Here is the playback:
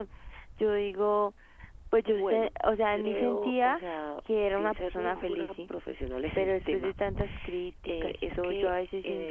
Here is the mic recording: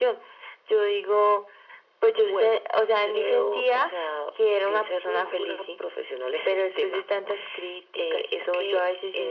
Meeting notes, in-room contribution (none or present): none